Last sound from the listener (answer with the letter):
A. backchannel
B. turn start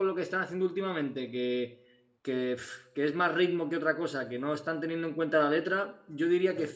A